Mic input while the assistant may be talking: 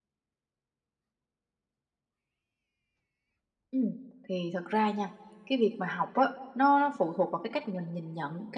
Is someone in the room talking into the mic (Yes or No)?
No